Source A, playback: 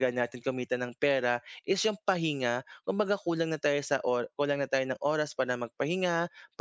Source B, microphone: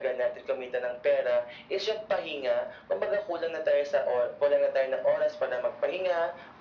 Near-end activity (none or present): none